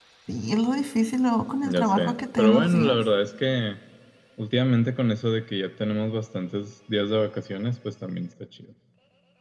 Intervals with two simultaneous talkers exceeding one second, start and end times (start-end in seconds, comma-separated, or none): 1.6-3.0